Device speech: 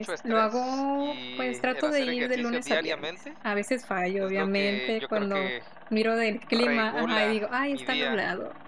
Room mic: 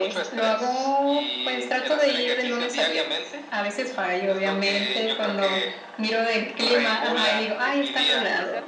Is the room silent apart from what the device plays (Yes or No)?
No